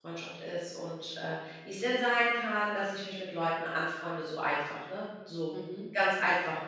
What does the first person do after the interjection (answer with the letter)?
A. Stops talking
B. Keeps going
B